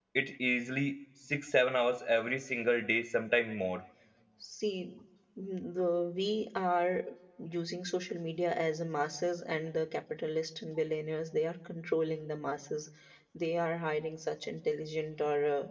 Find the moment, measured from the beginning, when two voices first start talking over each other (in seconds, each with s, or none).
none